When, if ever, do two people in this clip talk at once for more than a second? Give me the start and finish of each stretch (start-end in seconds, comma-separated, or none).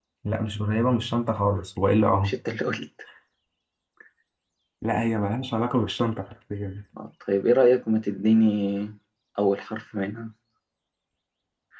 none